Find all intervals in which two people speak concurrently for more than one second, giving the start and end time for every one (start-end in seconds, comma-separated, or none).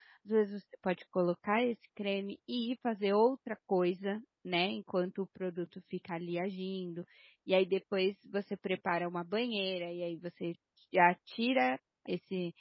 none